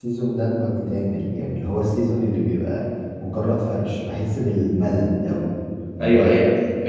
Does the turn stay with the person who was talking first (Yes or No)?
No